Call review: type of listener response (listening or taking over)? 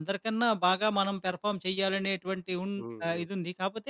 listening